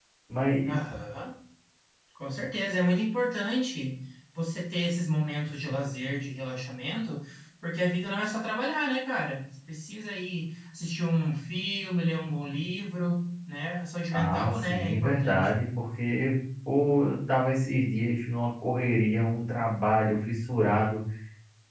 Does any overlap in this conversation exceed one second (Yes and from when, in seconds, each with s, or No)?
Yes, from 14.1 s